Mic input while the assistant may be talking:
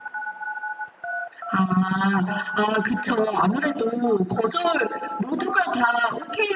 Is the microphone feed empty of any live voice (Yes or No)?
No